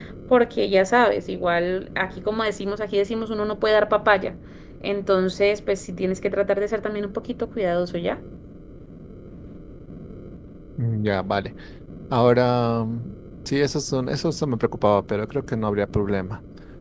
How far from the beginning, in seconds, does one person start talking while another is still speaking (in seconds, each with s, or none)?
none